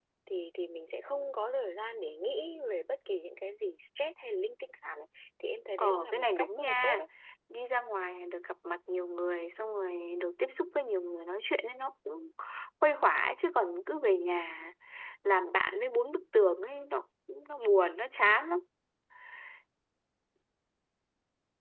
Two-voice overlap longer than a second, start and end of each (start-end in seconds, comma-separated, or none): 5.8-7.0